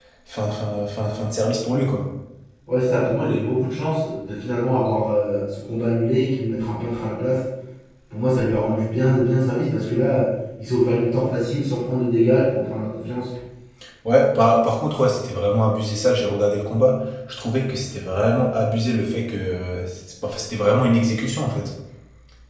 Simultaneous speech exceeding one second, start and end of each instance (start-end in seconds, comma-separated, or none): none